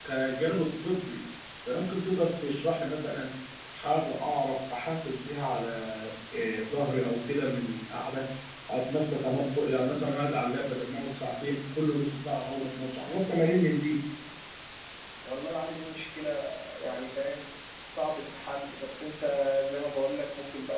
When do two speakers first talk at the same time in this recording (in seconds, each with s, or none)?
none